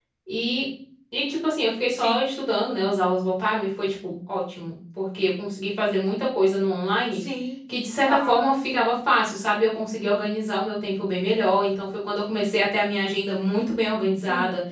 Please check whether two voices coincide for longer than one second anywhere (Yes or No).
No